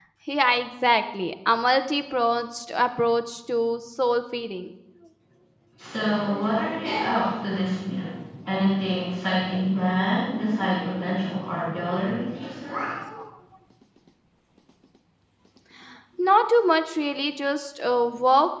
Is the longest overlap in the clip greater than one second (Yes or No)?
No